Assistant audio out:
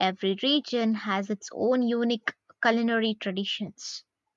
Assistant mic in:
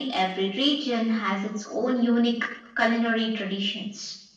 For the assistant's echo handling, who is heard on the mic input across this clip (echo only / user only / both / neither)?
echo only